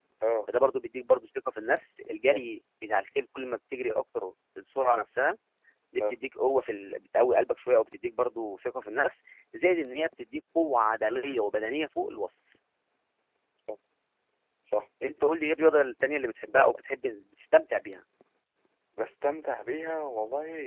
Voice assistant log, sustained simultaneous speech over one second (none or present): none